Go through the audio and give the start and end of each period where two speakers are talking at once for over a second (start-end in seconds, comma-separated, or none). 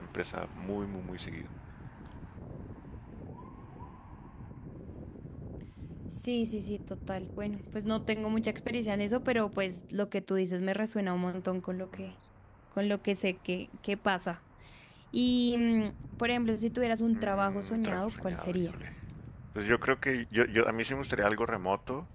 17.1-18.8